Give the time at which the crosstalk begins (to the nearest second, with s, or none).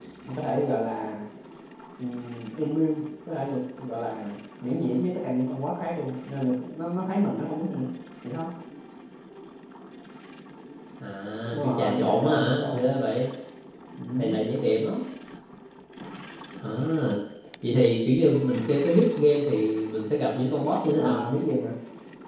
12 s